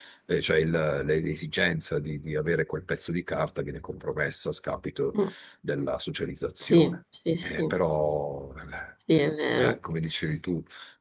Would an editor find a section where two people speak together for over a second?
No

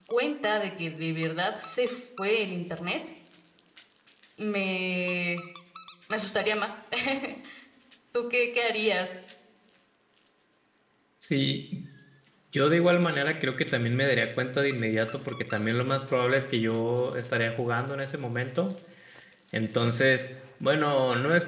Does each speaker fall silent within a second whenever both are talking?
Yes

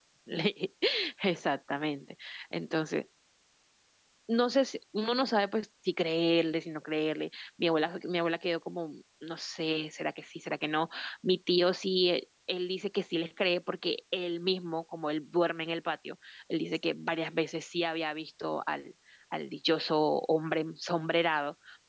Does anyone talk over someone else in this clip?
No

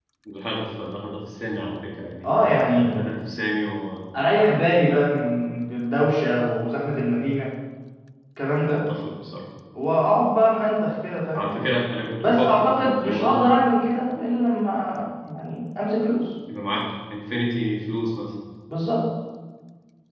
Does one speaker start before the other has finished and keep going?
Yes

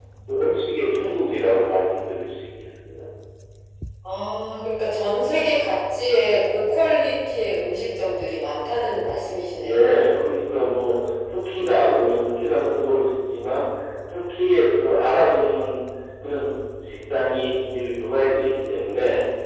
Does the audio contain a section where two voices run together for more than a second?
No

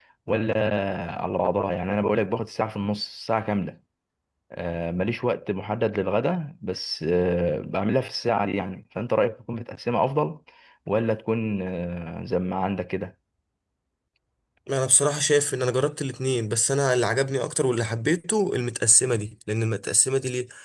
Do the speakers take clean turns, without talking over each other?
Yes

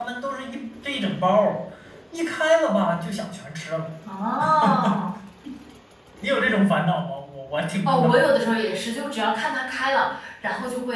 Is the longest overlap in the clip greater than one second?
No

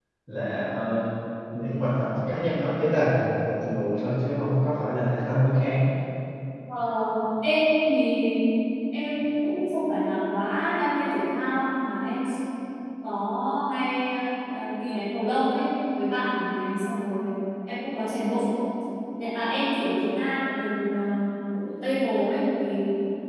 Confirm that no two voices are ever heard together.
Yes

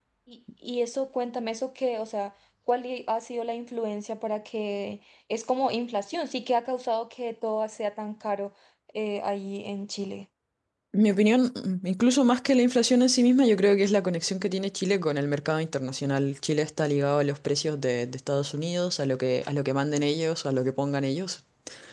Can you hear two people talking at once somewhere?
No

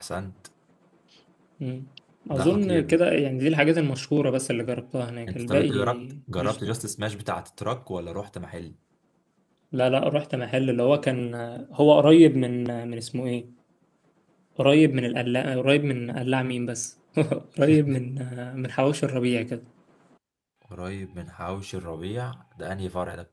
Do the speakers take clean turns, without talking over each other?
No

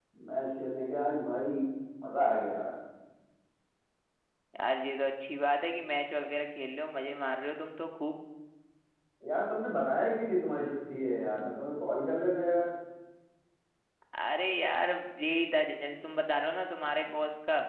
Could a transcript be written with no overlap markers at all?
Yes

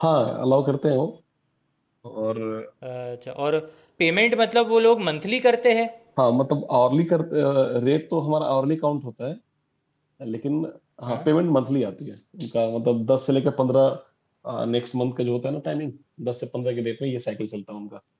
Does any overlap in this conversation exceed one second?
No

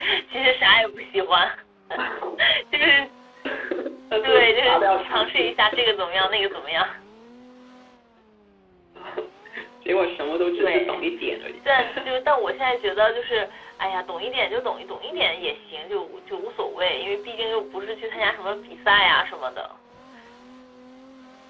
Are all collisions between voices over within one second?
No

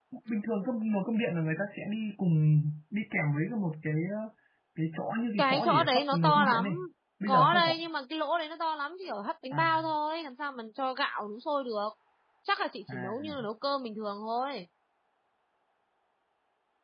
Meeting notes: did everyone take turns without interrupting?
No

